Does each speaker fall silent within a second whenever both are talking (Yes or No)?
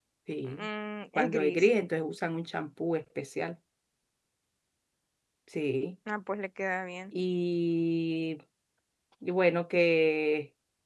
Yes